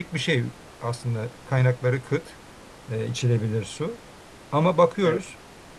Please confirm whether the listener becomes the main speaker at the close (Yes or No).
No